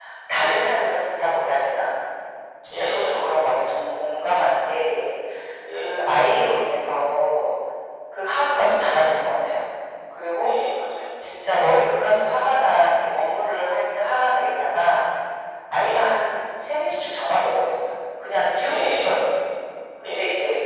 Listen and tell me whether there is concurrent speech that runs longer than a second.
No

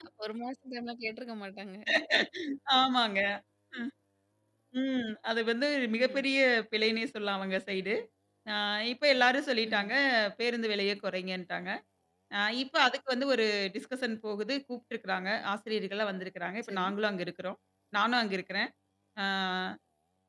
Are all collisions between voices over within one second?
Yes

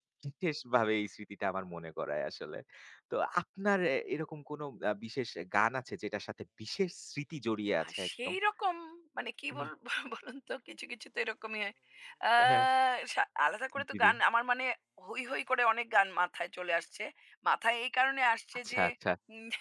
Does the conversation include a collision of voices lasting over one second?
No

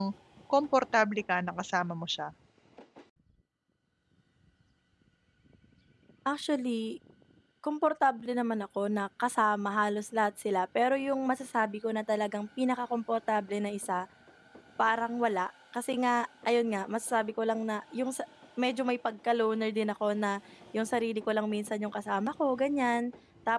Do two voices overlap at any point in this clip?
No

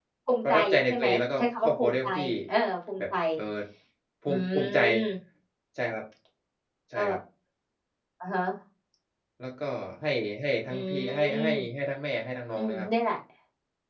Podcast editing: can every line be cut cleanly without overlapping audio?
No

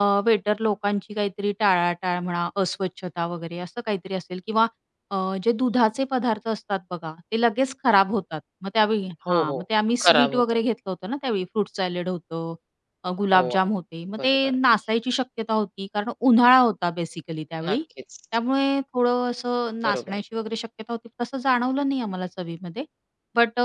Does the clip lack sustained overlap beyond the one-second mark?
Yes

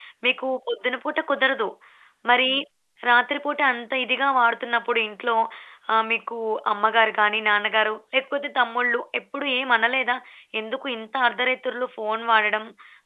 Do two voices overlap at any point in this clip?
No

